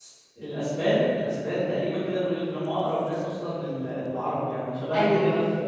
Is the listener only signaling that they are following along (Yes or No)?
Yes